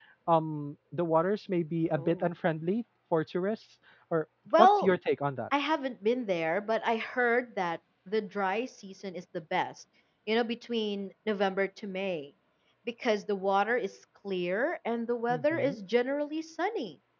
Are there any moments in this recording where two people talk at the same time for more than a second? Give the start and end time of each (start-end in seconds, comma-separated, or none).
none